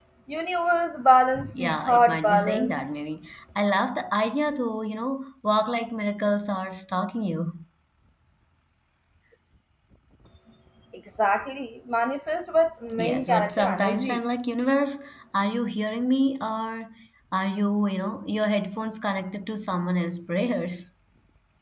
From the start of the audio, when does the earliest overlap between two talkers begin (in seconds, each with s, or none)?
1.6 s